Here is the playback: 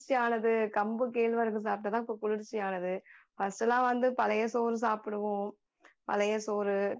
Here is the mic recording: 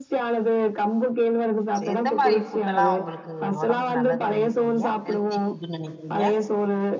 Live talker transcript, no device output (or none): சேர் எந்த மாரி ஃபுட்டல்லா உங்களுக்கு ஒடம்புக்கு நல்லதுன் நெனைக்கிறீங்க ஹெல்தி ஃபுட்டுன்னு நெனைக்கிறீங்க